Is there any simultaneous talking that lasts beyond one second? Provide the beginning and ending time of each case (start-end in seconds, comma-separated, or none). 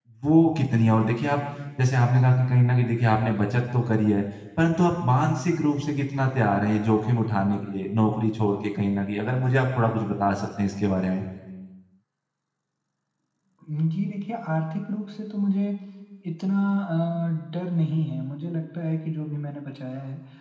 none